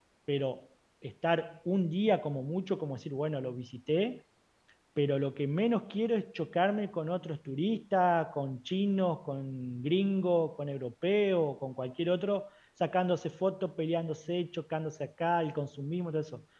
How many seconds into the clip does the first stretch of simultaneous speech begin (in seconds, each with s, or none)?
none